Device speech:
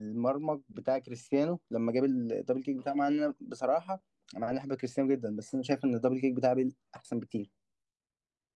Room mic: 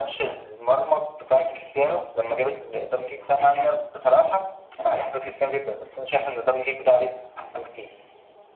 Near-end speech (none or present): none